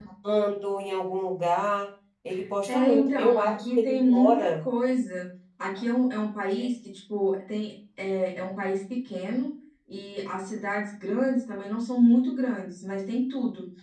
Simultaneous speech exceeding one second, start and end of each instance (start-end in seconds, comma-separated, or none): 2.7-4.5